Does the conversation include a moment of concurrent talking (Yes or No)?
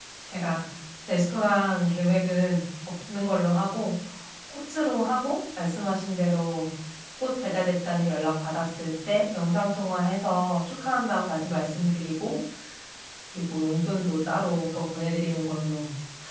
No